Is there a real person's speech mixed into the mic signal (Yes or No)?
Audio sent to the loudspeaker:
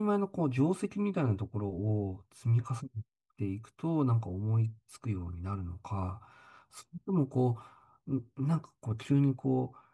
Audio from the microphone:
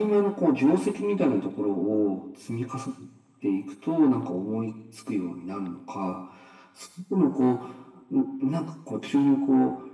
No